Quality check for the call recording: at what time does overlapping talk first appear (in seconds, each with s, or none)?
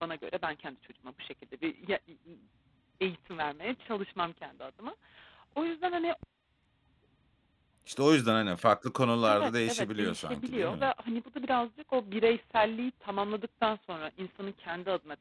9.3 s